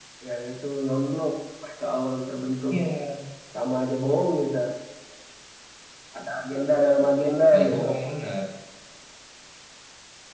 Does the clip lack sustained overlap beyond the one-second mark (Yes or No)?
Yes